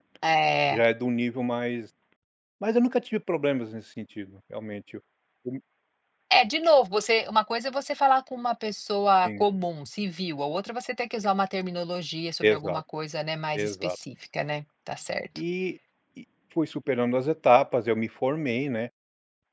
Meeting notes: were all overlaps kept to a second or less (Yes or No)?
Yes